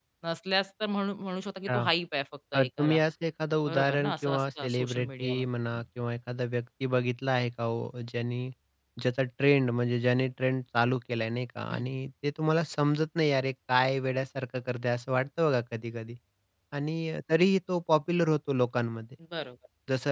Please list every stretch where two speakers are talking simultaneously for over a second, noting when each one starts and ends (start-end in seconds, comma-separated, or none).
3.7-5.4